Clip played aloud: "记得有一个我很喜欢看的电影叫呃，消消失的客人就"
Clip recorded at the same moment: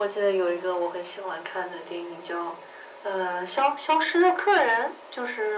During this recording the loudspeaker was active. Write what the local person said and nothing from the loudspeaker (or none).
none